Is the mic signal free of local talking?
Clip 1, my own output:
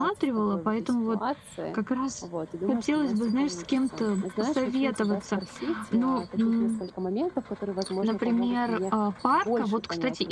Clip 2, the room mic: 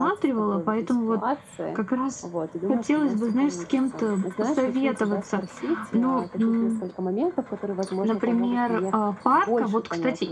Yes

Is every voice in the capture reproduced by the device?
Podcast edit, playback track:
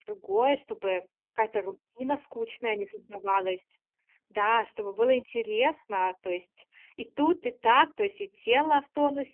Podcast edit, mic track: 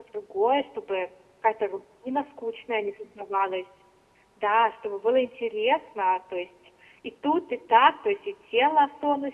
Yes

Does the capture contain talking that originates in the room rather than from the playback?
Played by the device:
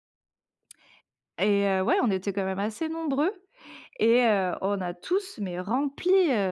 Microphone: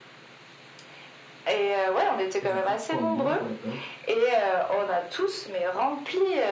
Yes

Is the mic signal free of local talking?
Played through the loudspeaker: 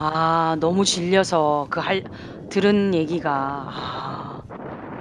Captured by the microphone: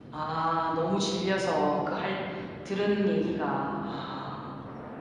Yes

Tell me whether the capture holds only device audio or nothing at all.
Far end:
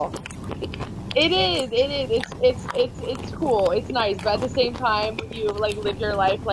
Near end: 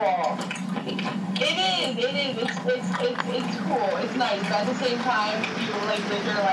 Yes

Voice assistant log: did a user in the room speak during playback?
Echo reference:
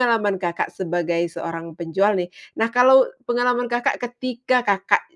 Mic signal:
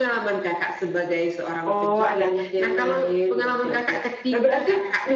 Yes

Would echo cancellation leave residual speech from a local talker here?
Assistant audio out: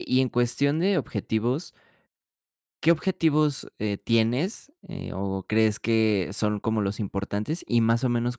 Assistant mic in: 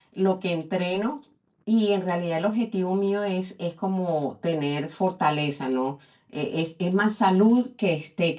Yes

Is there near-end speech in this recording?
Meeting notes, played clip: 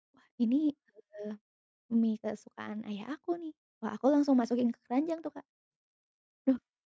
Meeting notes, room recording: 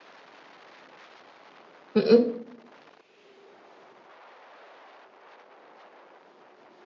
Yes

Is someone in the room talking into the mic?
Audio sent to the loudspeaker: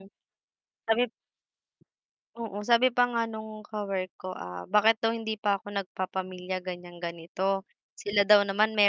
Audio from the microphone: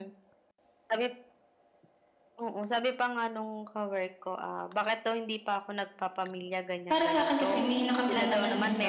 Yes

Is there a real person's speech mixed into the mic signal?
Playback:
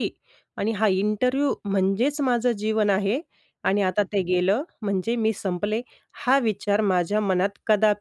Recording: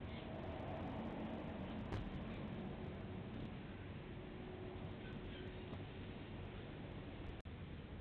No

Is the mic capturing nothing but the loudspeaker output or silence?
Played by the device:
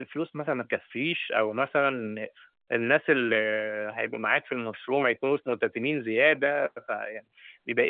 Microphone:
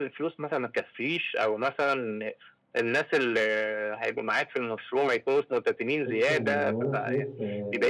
No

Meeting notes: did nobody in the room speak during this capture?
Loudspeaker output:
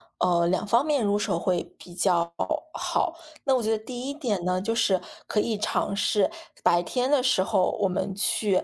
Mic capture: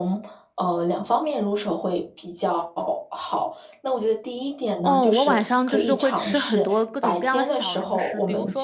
No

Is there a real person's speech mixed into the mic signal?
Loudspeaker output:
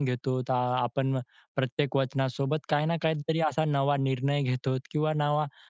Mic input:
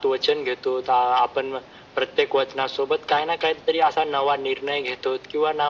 No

